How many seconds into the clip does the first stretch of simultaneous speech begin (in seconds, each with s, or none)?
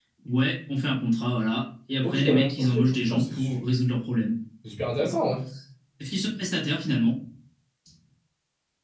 2.0 s